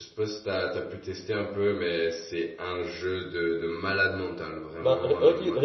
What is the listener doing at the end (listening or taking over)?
taking over